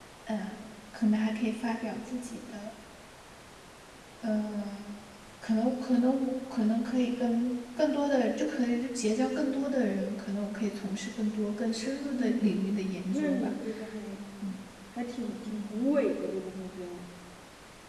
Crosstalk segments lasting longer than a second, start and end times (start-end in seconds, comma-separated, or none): 12.2-13.5